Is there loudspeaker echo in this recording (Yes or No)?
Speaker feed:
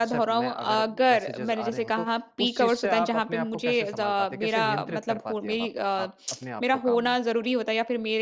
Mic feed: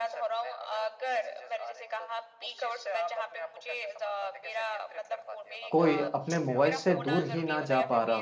Yes